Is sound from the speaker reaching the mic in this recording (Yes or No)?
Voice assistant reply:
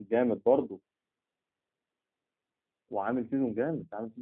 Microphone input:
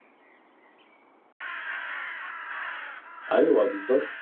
No